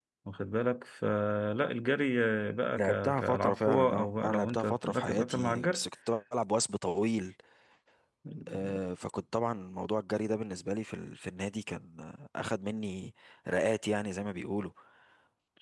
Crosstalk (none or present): present